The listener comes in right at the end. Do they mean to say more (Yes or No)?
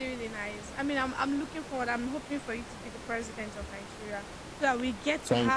No